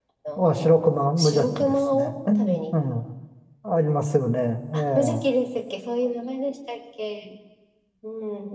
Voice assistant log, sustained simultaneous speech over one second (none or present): present